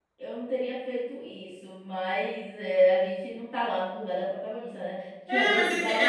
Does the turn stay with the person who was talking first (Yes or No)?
No